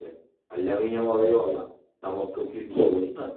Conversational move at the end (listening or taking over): listening